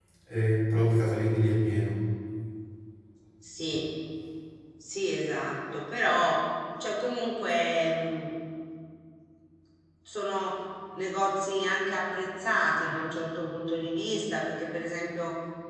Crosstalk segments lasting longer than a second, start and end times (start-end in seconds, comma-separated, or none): none